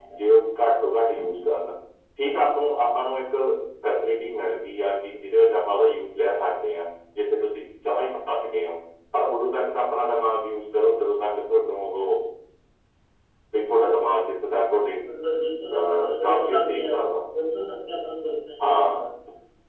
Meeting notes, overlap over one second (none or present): present